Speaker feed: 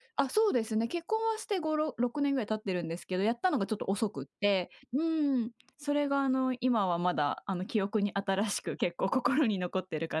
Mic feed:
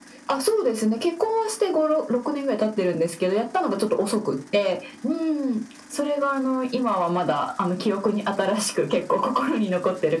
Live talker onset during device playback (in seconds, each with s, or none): none